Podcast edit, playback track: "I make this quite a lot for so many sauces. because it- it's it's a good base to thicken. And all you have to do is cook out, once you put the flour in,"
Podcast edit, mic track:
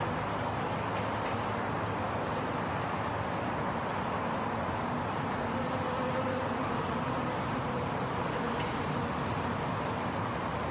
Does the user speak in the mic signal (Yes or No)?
No